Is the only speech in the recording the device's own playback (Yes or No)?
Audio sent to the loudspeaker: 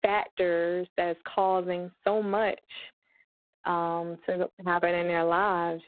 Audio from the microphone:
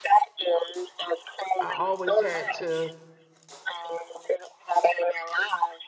No